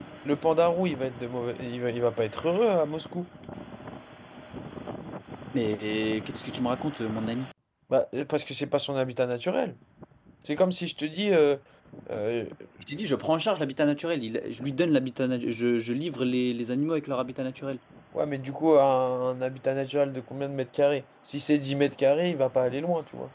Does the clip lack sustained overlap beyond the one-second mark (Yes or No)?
Yes